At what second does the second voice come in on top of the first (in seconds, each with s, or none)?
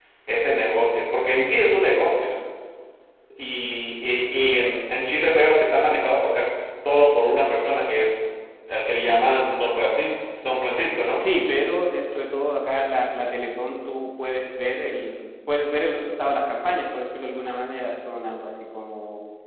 none